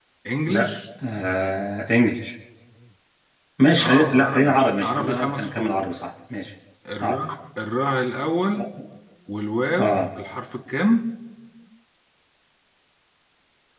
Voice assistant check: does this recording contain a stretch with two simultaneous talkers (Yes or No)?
Yes